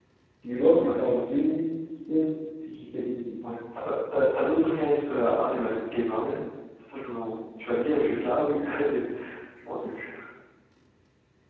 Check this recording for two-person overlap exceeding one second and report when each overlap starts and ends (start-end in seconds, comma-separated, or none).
none